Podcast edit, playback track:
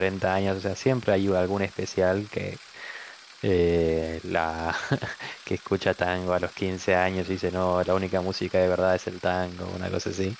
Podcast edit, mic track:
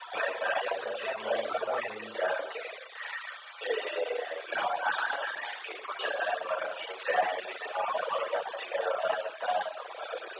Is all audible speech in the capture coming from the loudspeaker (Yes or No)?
No